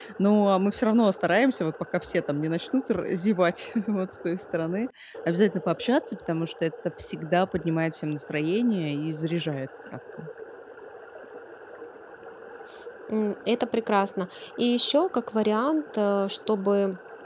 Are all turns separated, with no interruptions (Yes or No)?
Yes